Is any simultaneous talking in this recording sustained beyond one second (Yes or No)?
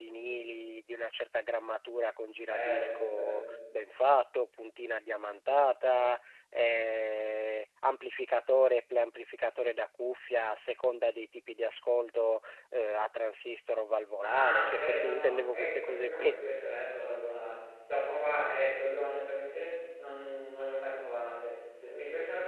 Yes